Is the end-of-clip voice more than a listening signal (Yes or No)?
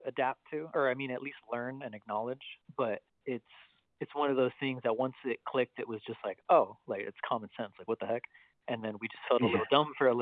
No